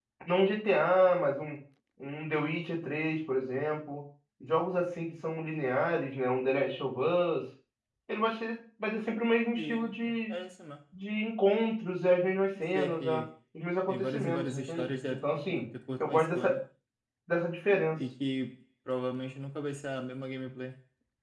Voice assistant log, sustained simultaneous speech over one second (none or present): present